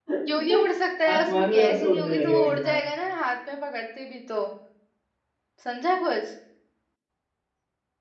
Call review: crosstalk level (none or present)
present